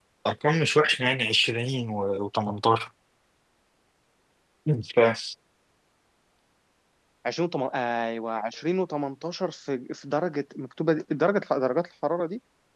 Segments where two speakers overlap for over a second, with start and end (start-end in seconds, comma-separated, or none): none